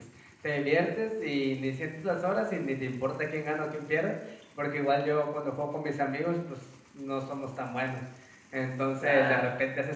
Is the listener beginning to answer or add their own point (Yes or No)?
No